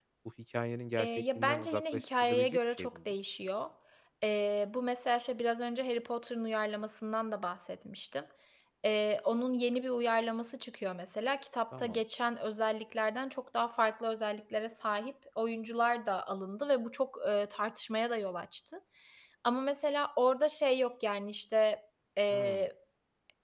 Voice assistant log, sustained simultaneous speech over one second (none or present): present